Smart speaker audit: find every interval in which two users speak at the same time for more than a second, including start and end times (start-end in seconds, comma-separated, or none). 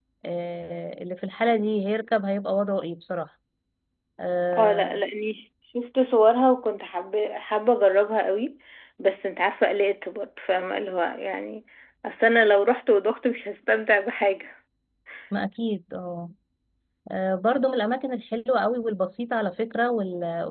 none